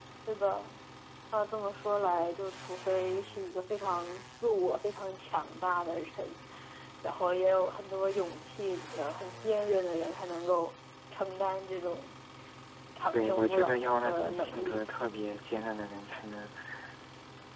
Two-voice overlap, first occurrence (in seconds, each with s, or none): 13.1 s